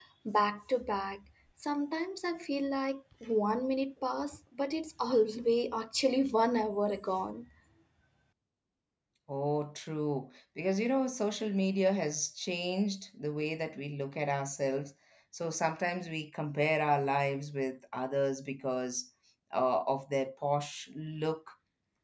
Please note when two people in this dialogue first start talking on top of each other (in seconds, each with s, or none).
none